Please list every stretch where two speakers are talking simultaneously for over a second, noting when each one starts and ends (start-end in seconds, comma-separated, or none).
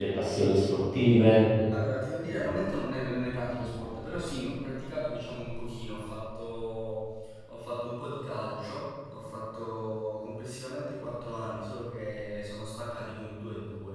none